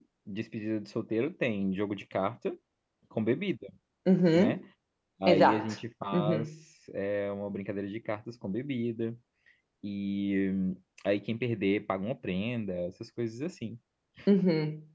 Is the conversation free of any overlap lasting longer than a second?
Yes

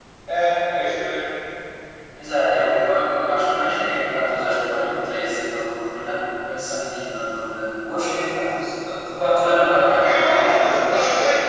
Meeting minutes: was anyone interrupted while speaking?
Yes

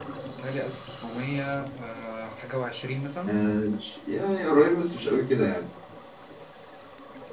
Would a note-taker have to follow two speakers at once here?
No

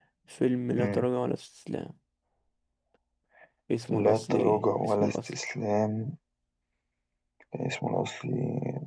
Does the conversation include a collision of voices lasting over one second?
Yes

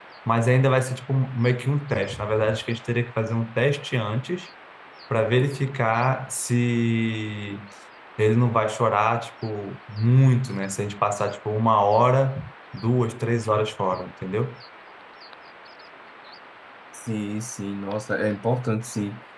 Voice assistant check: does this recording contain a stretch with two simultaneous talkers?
No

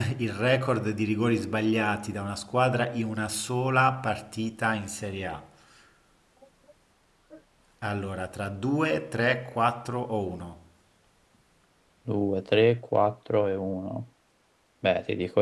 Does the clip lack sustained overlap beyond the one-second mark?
Yes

